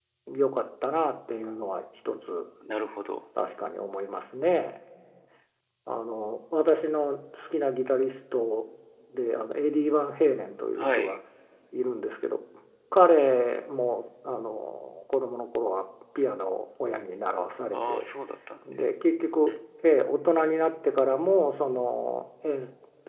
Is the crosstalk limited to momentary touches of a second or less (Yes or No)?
Yes